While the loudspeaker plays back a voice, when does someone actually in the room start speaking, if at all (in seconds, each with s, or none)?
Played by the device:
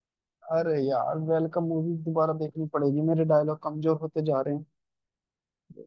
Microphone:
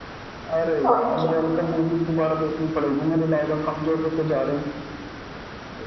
0.9 s